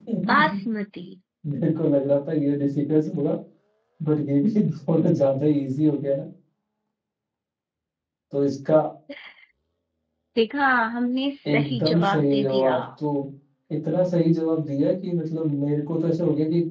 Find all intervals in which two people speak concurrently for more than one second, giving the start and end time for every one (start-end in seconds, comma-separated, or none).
11.5-12.7